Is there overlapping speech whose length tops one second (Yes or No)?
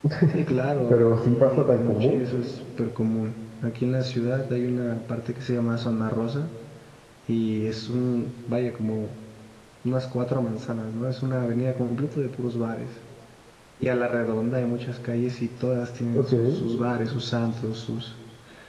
Yes